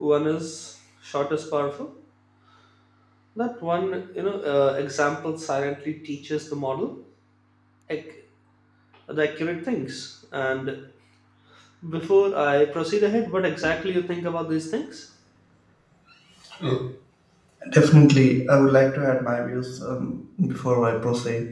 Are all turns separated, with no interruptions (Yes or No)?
Yes